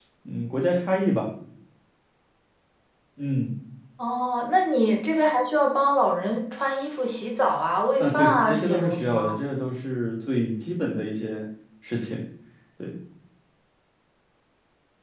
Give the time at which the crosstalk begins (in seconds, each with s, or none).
8.0 s